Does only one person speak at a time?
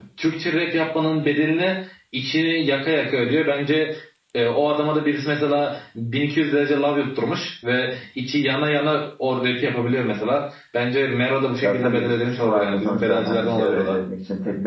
No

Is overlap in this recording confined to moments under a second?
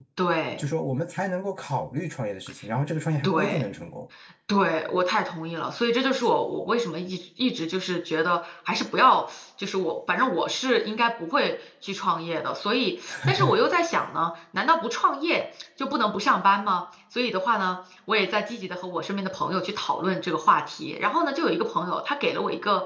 Yes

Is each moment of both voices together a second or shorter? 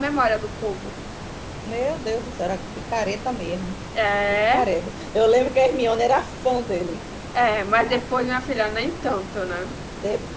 Yes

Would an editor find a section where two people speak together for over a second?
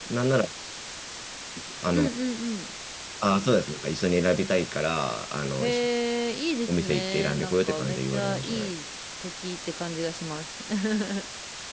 Yes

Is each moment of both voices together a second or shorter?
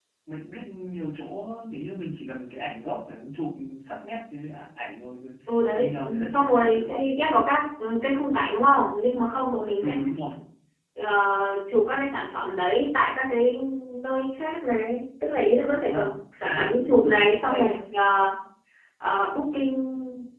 No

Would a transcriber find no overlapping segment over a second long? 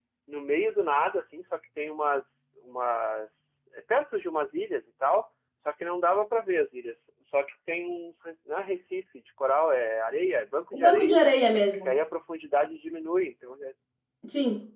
Yes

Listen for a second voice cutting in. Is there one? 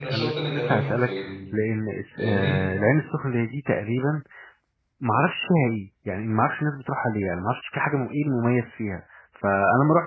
Yes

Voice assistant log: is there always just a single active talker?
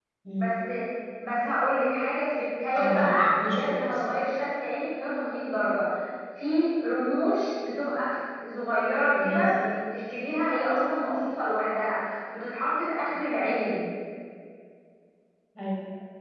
No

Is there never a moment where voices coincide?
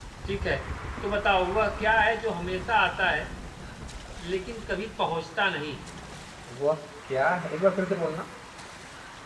Yes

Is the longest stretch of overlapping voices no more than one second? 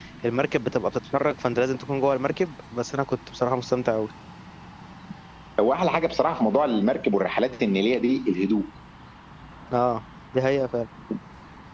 Yes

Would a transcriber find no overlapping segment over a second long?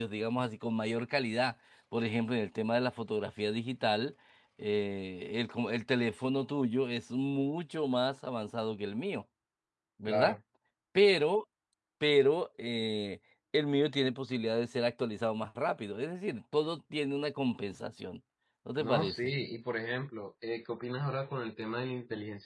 Yes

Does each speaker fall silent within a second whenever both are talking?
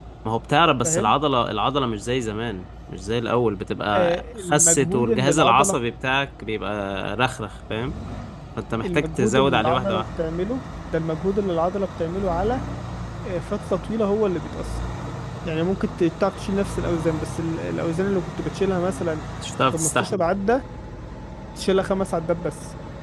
No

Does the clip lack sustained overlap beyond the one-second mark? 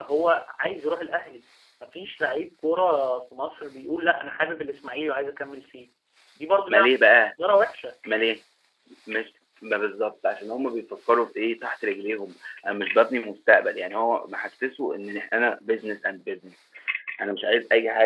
Yes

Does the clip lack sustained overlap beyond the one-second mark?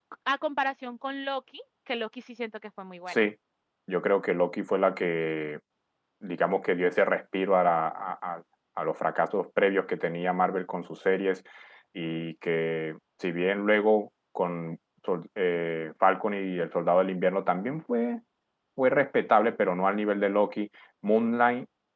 Yes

